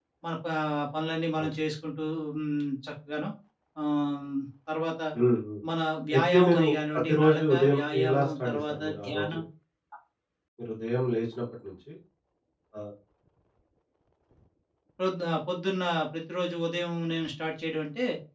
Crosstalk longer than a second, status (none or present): present